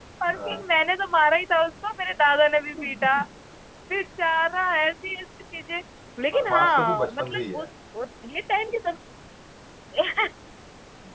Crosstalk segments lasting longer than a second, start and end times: 6.3-7.7

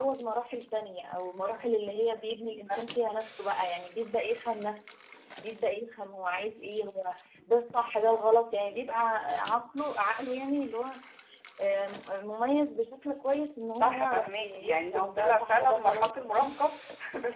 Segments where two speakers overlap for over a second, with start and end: 13.8-16.6

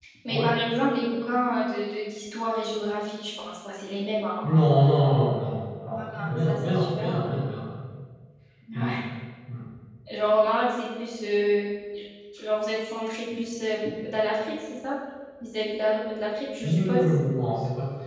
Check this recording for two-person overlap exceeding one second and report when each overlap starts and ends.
6.0-7.2

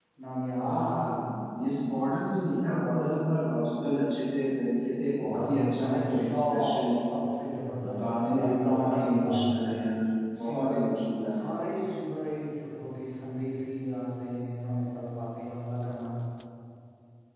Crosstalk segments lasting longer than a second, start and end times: 5.3-6.8, 8.0-9.6

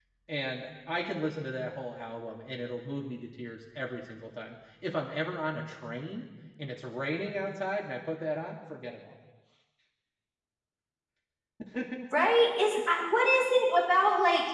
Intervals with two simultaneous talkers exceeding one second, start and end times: none

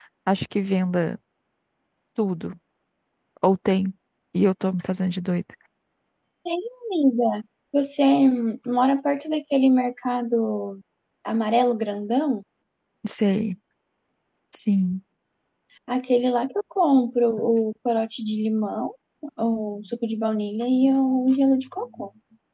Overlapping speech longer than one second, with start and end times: none

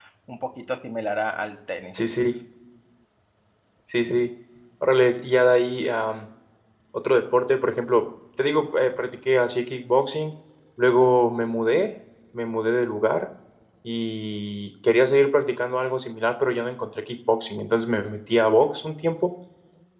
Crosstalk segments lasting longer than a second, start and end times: none

